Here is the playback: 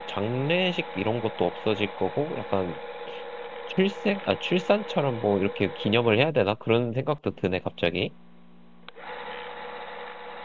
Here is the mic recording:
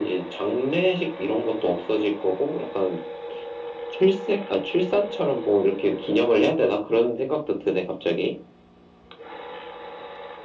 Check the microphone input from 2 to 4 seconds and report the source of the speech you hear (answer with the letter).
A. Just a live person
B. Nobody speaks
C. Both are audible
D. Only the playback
D